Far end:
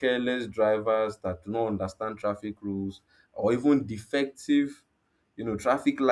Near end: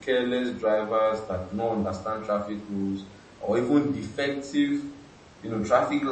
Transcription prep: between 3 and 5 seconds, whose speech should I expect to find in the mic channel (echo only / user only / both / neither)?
echo only